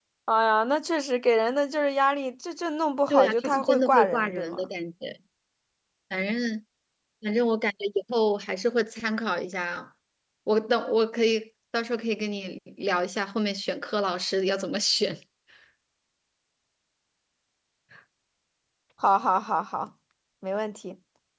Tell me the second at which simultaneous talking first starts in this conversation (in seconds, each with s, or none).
3.1 s